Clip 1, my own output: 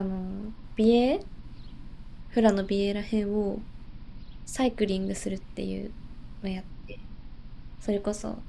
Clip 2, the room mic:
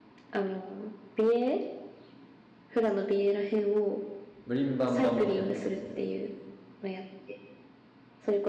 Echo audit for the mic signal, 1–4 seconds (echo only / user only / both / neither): echo only